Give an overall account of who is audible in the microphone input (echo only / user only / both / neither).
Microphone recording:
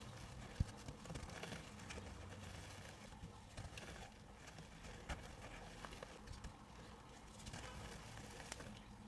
neither